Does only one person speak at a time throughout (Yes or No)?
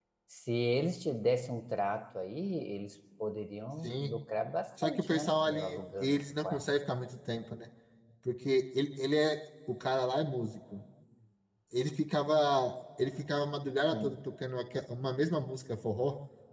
No